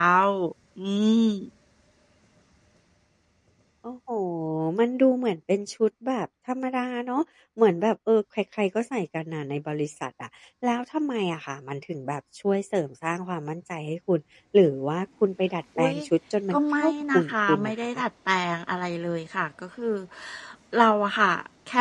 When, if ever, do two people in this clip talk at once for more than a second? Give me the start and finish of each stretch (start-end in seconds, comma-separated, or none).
16.5-17.7